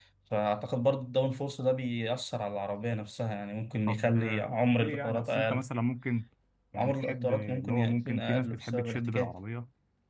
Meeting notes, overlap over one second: present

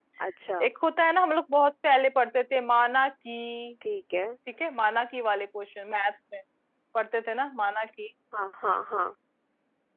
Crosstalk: none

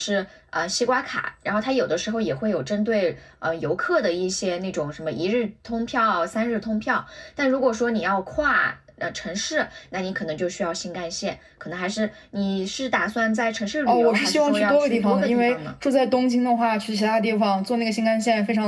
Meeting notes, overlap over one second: present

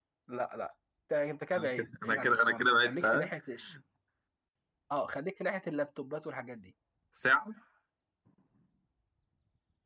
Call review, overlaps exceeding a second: present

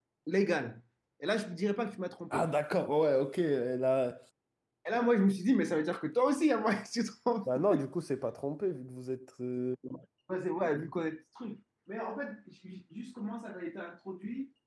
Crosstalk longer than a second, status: none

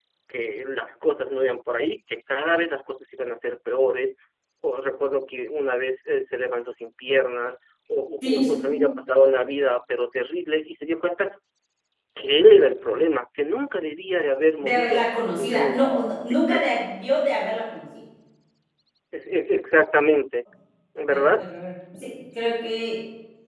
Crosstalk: present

